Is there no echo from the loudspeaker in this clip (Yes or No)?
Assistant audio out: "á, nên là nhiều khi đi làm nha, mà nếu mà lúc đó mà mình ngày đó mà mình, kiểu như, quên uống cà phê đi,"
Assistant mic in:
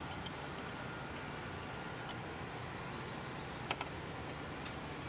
Yes